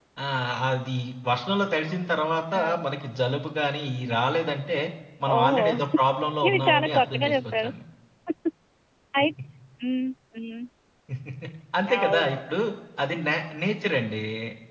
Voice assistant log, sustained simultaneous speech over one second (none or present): present